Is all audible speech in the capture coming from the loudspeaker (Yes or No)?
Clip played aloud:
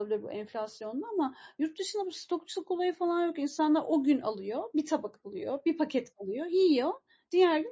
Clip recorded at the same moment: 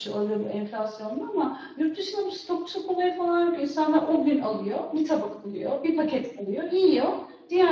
Yes